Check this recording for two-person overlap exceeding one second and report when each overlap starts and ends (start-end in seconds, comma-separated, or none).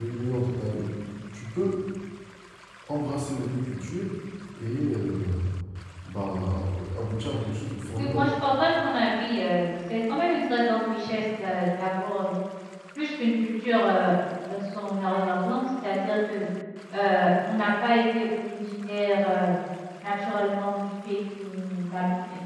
none